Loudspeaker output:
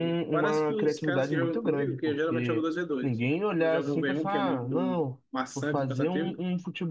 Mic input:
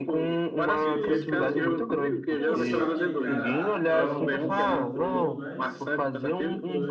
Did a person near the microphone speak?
Yes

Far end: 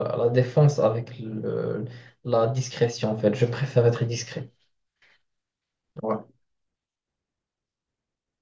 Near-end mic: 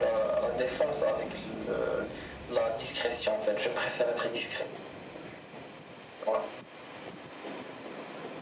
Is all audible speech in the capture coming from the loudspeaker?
Yes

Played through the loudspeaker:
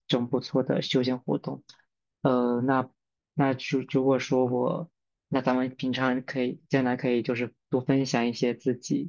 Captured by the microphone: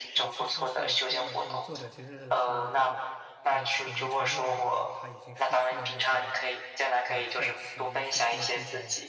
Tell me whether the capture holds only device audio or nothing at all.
No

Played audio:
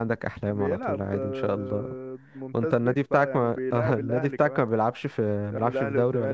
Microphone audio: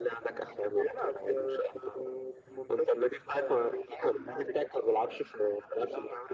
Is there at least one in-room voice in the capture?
No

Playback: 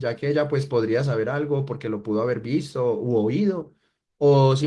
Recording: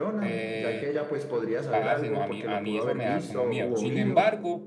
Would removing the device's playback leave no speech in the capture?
No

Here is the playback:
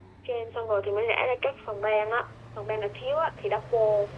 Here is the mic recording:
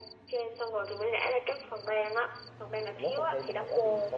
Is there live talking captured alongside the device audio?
Yes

